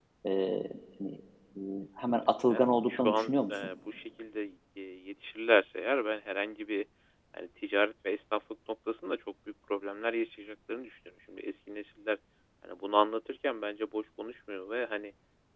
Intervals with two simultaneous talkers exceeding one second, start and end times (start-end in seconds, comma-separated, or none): 2.2-3.6